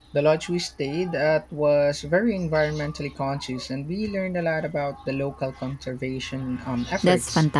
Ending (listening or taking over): taking over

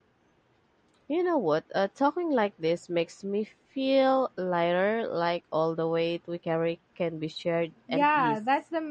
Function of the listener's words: taking over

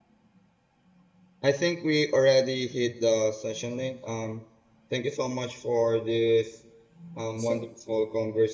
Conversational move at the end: listening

